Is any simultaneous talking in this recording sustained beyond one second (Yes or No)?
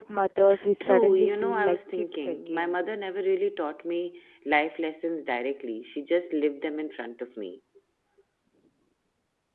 Yes